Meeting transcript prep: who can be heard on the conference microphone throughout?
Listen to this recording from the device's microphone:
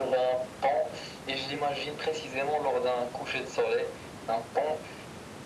echo only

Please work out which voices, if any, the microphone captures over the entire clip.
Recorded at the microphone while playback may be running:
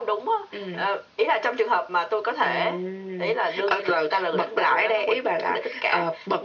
echo only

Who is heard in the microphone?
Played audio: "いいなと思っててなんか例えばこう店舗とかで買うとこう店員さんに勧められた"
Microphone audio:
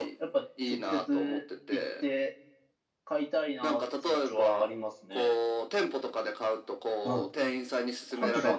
both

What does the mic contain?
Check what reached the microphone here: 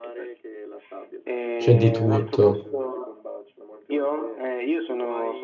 both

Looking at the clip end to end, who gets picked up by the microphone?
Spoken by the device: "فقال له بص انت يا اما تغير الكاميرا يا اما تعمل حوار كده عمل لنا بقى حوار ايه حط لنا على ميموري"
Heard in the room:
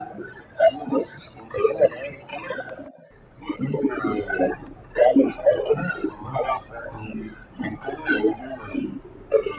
echo only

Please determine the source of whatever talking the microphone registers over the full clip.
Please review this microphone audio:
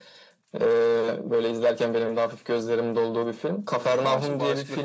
both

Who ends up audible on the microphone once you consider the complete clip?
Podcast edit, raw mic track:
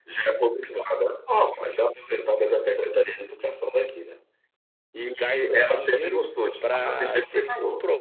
both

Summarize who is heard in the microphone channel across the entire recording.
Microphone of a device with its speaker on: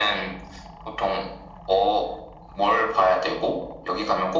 echo only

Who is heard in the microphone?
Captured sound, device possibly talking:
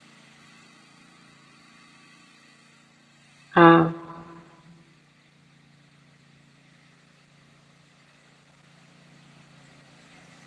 user only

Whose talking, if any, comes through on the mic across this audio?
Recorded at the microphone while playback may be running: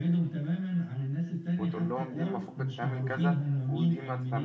both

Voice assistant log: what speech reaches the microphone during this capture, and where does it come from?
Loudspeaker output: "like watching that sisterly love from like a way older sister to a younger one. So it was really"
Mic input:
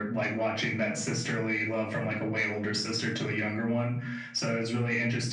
echo only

